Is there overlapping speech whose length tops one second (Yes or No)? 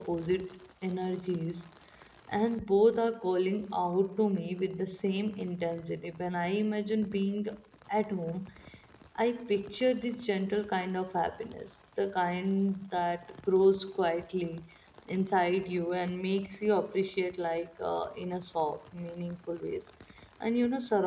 No